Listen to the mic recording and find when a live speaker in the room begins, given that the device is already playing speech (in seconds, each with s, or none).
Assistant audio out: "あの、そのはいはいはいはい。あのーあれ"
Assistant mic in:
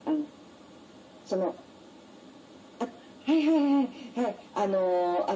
none